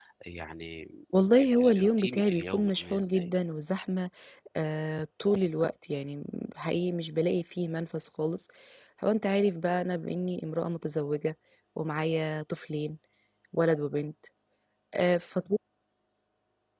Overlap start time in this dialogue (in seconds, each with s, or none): 1.4 s